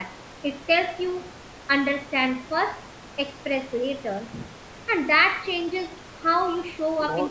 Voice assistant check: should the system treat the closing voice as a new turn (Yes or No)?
No